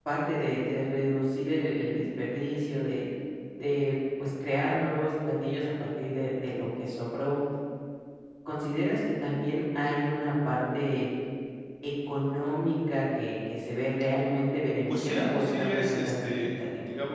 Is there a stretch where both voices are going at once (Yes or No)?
Yes